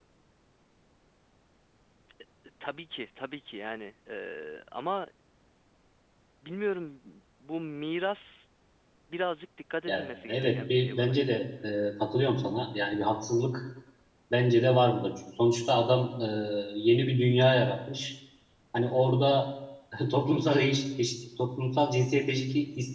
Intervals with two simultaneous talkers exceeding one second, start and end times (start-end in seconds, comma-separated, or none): 9.9-11.4